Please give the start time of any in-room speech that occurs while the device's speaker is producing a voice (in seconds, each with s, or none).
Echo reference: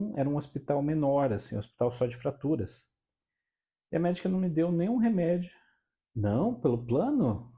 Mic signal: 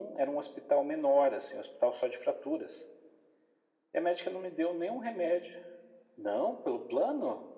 none